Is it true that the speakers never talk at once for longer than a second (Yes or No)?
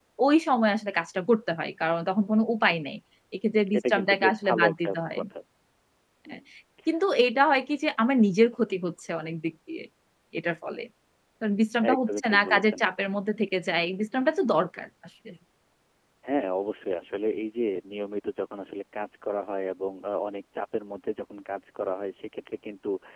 No